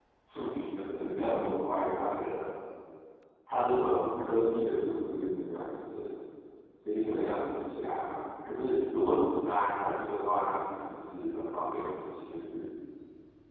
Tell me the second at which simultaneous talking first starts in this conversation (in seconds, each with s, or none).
none